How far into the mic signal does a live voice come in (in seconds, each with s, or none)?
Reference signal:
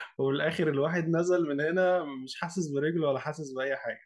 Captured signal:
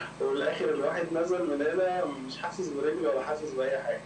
none